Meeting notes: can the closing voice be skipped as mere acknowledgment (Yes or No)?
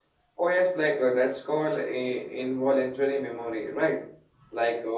Yes